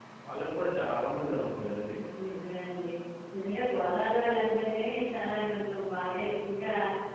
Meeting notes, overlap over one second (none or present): none